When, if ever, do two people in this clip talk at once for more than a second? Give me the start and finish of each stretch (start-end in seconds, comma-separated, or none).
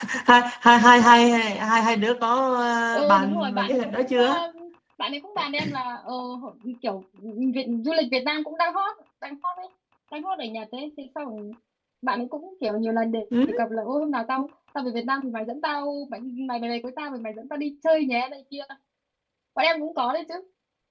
2.9-4.2